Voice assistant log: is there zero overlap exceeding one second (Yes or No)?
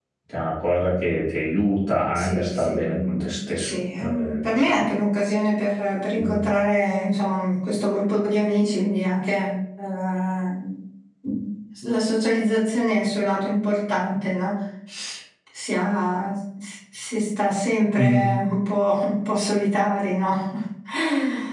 No